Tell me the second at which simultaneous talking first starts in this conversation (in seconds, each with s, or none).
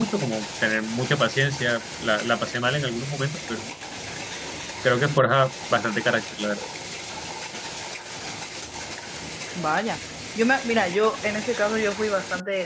none